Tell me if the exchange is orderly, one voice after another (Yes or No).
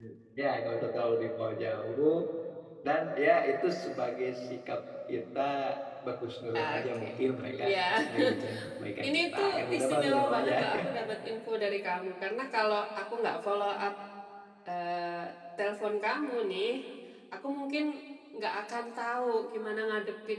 No